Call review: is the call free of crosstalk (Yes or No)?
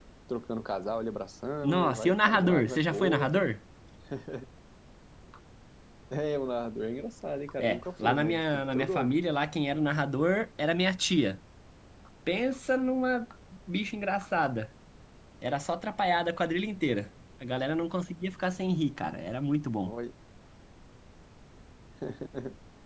No